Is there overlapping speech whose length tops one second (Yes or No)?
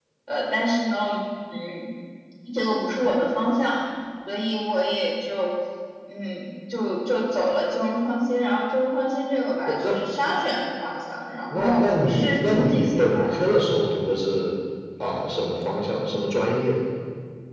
Yes